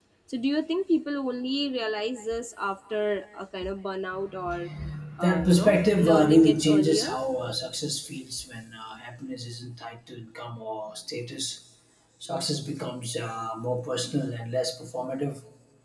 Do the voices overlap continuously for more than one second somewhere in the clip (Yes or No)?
Yes